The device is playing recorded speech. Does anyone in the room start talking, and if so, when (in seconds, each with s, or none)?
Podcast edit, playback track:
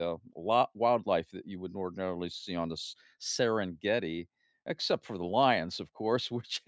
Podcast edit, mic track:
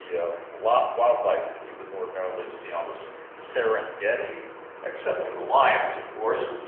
none